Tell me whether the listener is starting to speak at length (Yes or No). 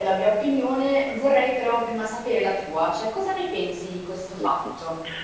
Yes